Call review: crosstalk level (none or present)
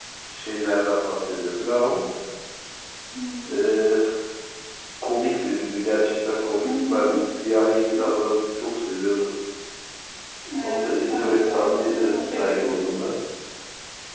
present